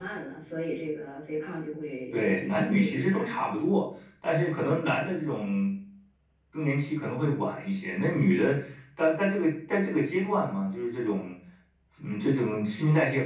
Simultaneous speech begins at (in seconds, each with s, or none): 2.1 s